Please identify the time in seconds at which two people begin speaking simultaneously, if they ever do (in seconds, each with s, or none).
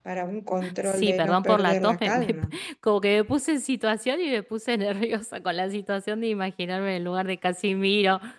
0.8 s